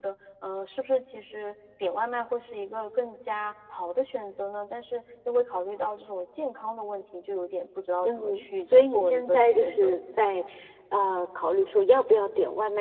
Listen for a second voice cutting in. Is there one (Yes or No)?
Yes